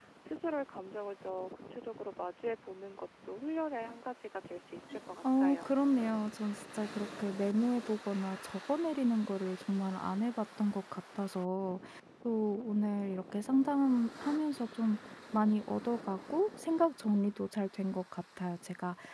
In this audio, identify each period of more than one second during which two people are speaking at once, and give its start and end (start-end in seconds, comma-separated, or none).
none